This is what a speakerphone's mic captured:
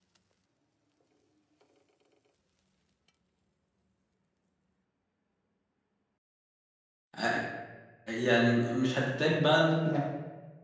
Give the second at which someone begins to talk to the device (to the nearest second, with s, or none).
7 s